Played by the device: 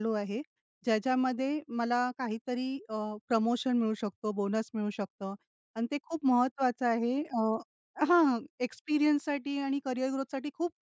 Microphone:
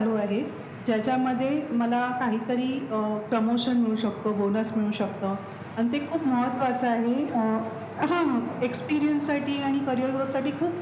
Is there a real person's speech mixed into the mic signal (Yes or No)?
No